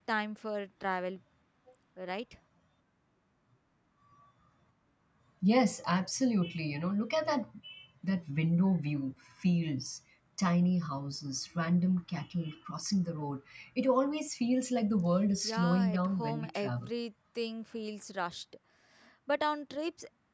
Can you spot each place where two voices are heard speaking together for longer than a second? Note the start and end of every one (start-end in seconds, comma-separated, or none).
15.4-16.9